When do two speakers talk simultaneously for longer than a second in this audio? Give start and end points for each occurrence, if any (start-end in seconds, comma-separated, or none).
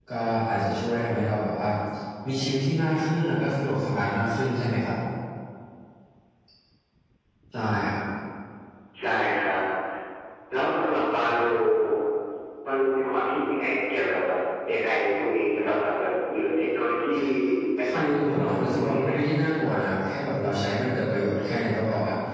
17.9-19.2